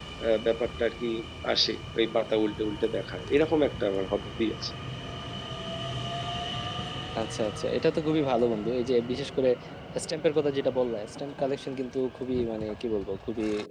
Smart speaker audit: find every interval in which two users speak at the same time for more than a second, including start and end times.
none

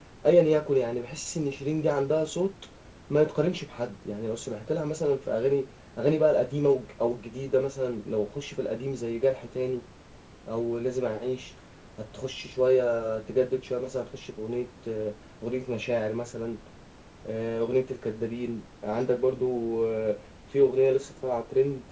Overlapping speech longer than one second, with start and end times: none

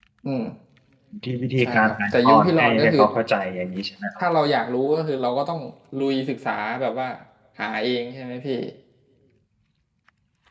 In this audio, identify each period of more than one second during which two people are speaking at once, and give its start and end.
1.6-3.0

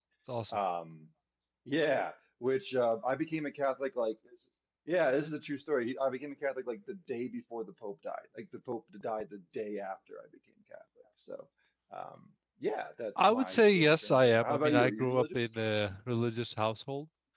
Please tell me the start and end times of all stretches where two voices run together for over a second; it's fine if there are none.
13.2-15.4

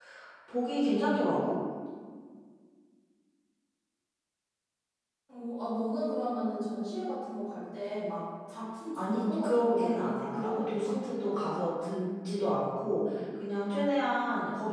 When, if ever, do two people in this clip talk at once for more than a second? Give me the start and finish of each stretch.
8.9-10.9

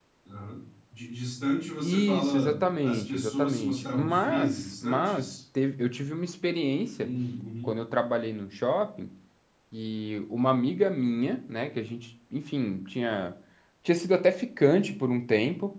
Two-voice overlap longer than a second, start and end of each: 1.8-5.3

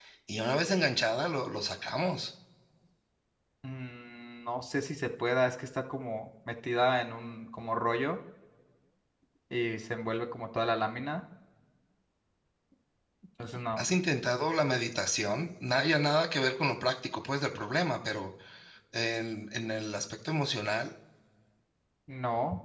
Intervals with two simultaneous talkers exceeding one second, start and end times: none

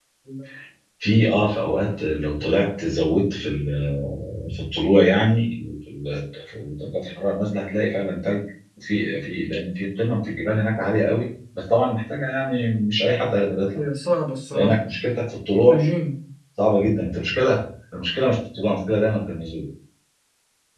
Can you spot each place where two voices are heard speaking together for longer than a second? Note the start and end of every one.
none

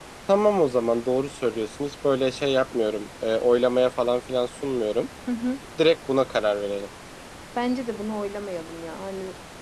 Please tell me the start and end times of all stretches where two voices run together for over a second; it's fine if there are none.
none

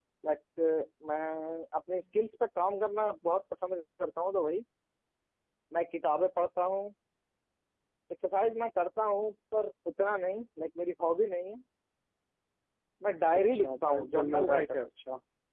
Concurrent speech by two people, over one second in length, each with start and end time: 13.4-14.9

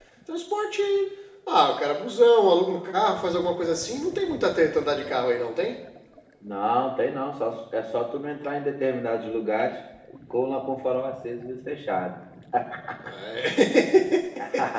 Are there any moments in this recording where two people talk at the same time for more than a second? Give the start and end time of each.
none

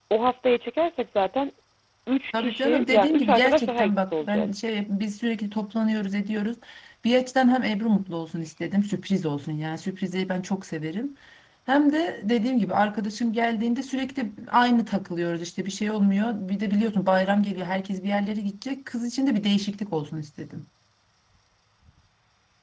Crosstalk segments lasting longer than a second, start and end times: 2.4-4.5

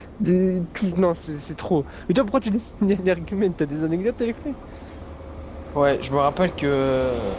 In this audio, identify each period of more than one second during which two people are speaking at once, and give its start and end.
none

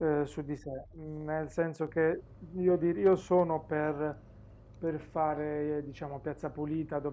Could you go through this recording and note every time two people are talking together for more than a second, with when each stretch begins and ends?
none

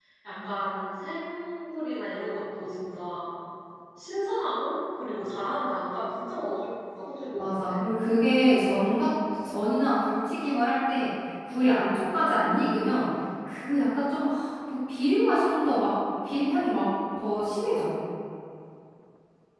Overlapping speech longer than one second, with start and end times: none

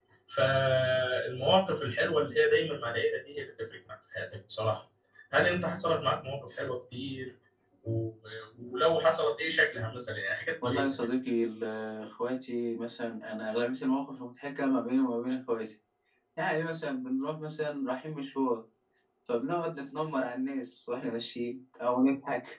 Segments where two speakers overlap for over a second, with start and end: none

